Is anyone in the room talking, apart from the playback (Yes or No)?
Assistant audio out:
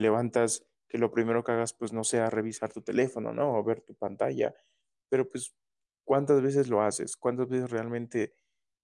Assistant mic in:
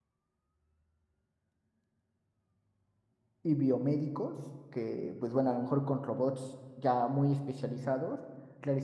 Yes